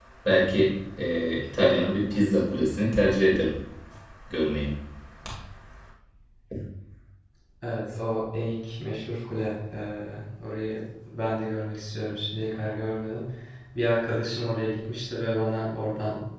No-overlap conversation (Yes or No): Yes